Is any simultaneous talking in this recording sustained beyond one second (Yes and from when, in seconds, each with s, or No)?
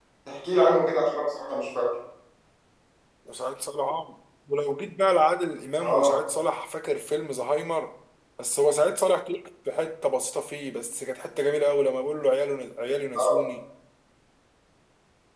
No